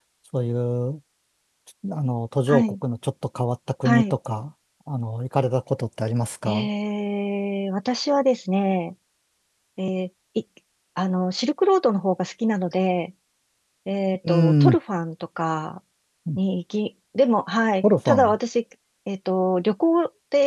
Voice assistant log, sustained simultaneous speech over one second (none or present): none